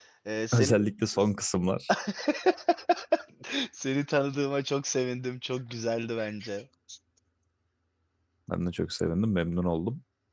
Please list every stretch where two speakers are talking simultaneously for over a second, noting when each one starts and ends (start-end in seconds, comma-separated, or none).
none